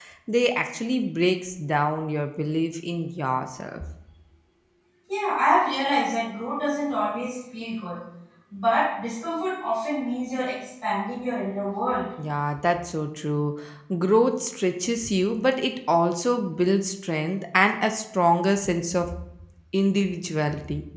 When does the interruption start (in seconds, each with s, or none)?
none